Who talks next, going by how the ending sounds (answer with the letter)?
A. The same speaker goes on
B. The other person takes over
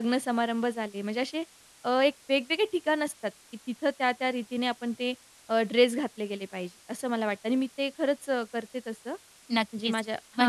B